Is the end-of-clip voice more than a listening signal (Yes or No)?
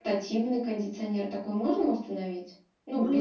No